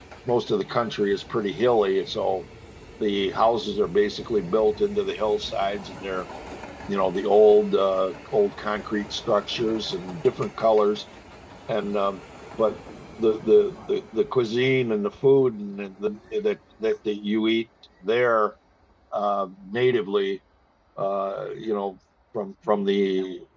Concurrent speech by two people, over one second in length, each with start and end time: none

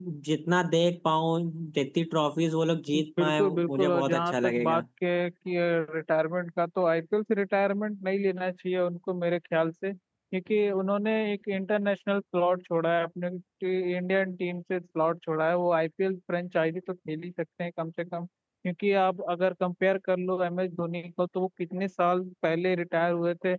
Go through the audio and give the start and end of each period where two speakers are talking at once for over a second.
3.0-4.8

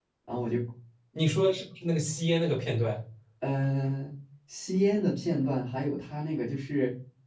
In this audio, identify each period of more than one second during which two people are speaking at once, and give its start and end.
none

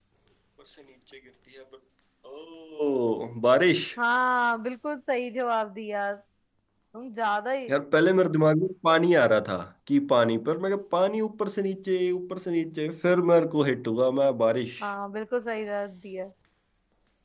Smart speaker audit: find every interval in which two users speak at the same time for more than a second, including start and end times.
none

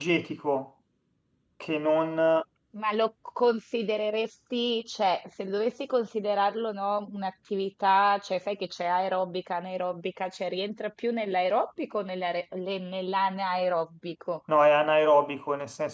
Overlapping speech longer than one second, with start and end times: none

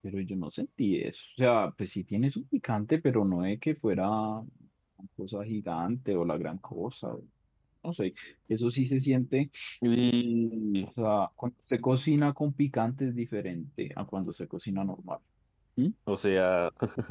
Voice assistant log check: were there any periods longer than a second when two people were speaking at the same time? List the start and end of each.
none

